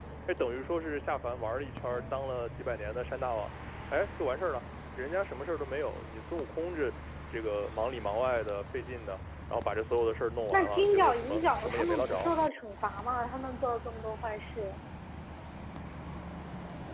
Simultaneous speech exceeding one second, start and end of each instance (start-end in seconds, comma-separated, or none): 10.5-12.3